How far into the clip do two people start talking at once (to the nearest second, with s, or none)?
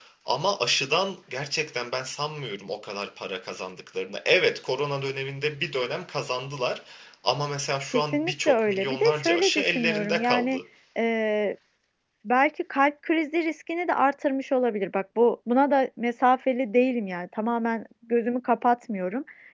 8 s